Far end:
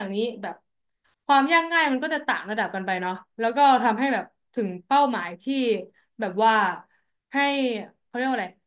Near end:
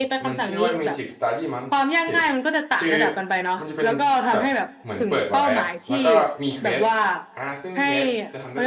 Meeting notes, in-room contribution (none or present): present